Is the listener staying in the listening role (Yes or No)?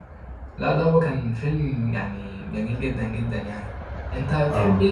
Yes